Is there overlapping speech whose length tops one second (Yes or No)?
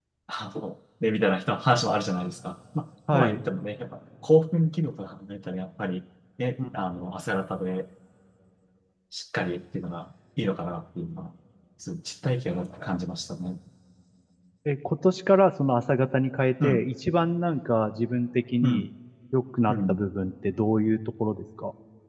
No